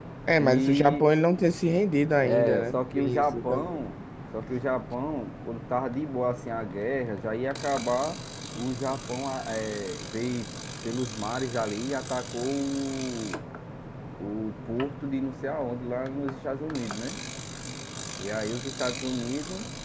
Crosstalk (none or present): present